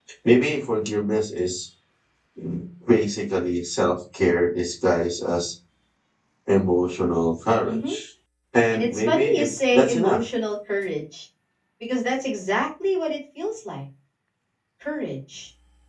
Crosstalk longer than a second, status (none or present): present